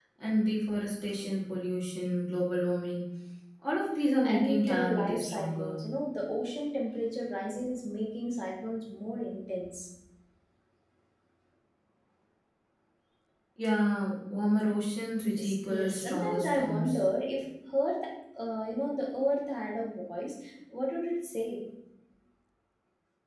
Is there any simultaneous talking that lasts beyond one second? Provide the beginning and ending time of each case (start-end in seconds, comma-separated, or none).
4.2-5.8, 15.4-17.0